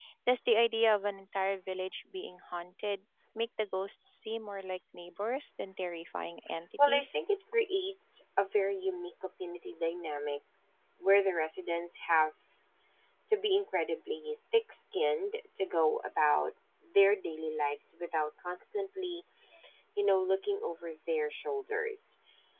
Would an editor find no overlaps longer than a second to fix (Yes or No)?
Yes